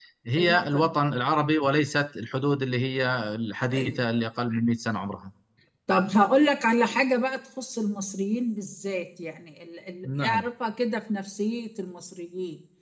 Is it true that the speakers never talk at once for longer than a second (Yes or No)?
Yes